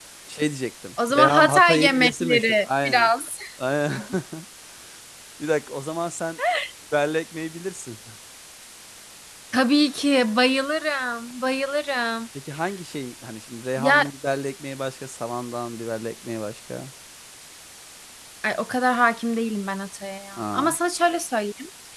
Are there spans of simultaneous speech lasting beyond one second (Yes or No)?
Yes